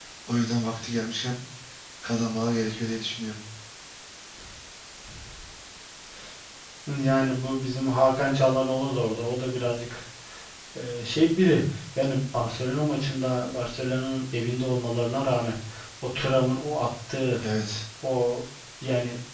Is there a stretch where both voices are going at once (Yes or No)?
No